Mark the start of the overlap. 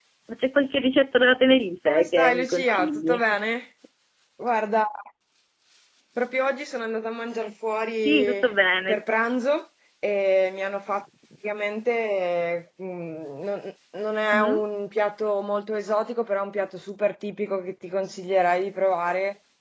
1.9 s

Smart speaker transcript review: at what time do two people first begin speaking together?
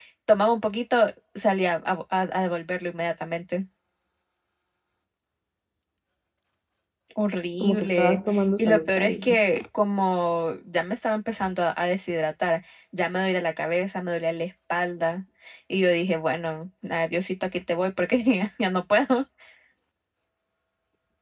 7.6 s

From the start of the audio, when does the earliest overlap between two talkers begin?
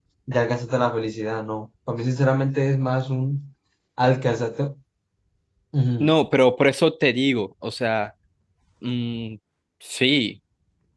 none

